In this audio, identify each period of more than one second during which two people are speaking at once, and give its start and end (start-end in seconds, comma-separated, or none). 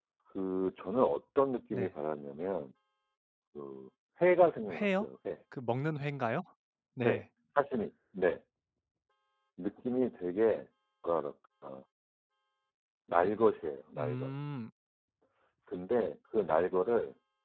none